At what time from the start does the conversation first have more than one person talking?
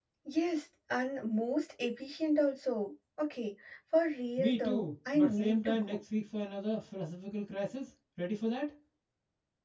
4.4 s

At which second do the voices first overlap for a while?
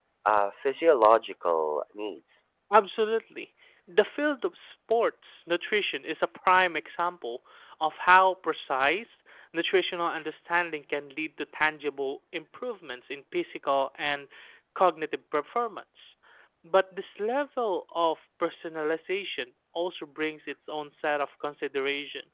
none

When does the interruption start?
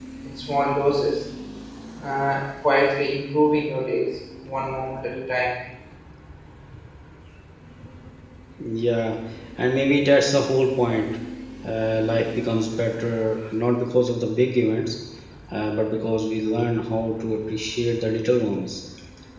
none

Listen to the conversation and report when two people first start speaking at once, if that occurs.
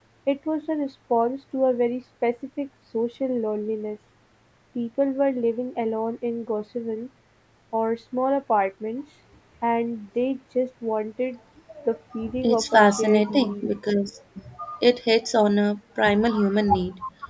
12.4 s

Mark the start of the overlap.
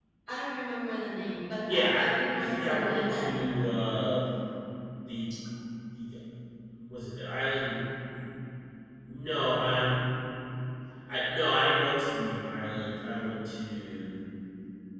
1.7 s

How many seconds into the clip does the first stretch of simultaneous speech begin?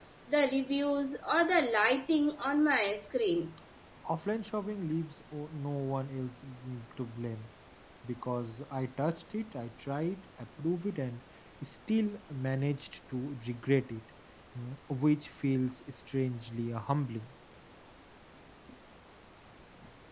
none

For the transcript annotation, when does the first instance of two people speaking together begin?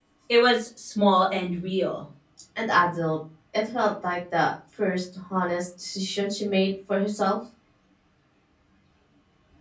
none

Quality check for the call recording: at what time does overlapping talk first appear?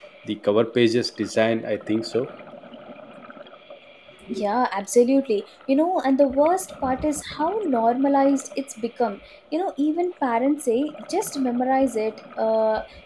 none

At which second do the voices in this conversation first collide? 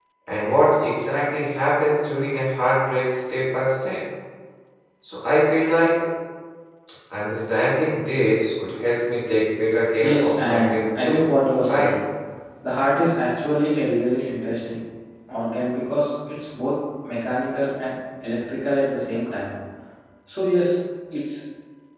10.0 s

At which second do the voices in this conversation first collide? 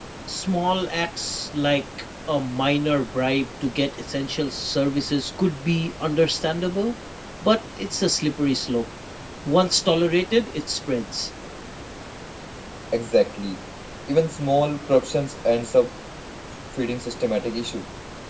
none

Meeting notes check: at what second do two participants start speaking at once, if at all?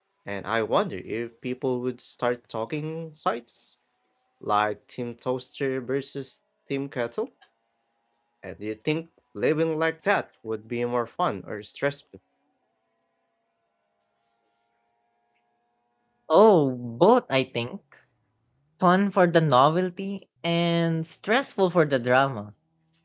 none

